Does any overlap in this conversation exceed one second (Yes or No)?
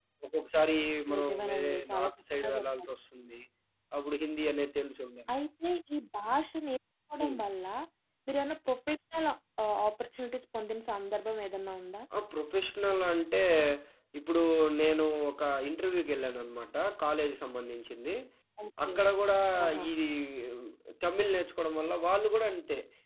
Yes